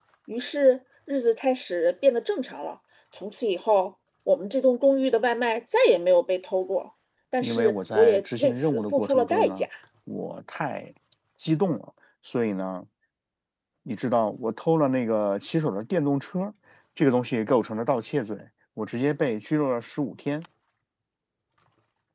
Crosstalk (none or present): present